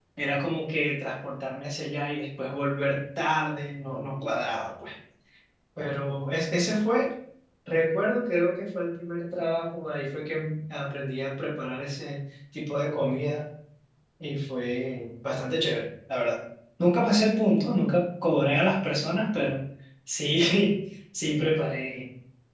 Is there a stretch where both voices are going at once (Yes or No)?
No